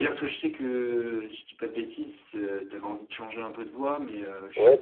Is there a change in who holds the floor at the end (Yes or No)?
Yes